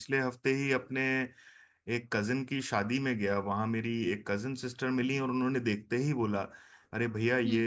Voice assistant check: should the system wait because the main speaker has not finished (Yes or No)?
Yes